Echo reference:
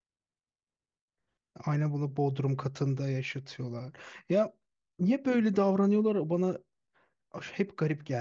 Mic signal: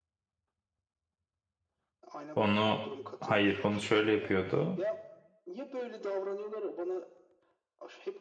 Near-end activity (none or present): present